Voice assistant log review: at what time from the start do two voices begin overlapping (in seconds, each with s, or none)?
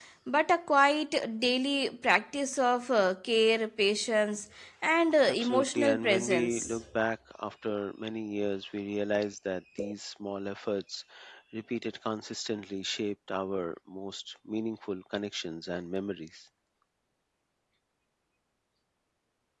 5.2 s